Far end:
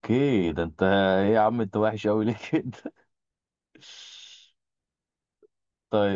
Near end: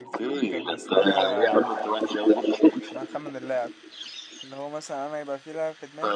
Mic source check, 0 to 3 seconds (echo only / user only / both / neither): both